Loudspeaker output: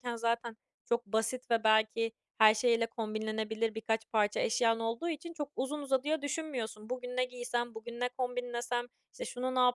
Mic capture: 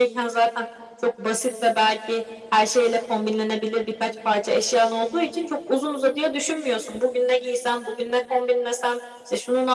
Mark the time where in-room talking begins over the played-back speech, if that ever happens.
none

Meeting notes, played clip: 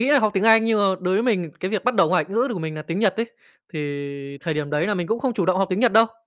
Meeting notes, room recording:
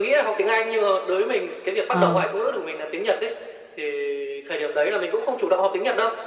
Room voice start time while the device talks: 1.9 s

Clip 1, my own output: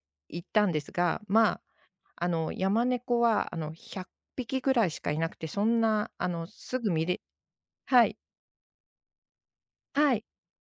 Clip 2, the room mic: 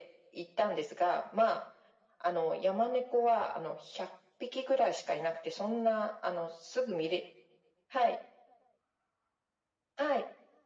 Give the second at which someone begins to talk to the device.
none

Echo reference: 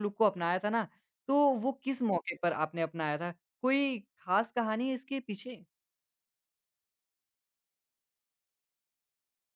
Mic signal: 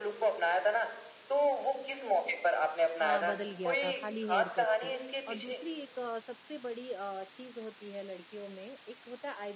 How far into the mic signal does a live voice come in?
3.0 s

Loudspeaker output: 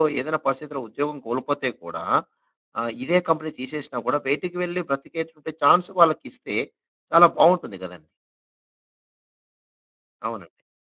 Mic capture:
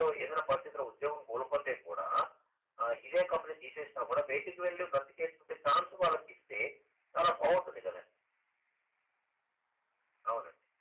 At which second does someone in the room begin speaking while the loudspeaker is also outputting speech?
none

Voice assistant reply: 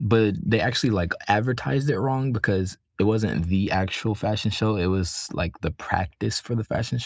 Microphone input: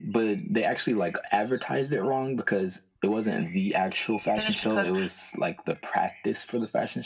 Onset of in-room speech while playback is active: 4.4 s

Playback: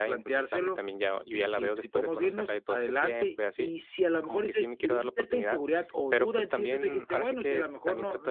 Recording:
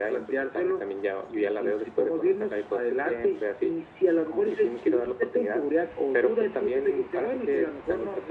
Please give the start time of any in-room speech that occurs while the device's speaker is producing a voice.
none

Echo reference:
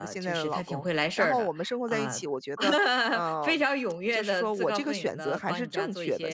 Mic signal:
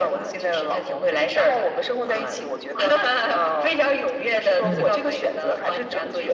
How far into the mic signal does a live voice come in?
4.6 s

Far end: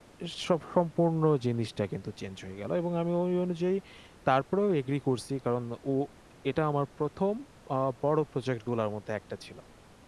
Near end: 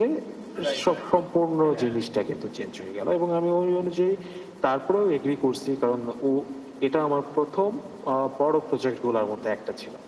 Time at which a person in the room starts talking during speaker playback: 0.6 s

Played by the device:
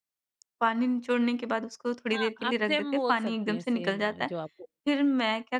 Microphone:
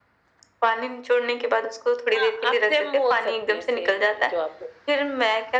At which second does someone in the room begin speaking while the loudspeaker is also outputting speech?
none

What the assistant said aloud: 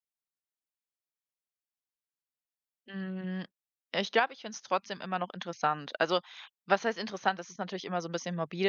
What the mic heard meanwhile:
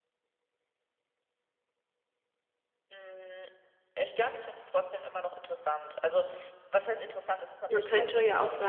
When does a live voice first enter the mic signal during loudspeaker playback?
7.7 s

